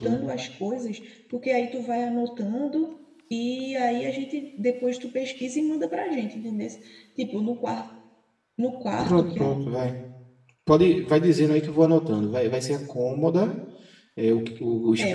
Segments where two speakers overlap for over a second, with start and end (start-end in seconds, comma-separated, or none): none